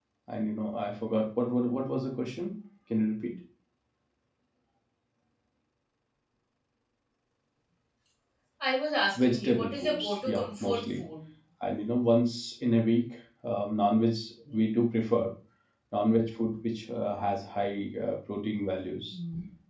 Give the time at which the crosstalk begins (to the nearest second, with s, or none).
9 s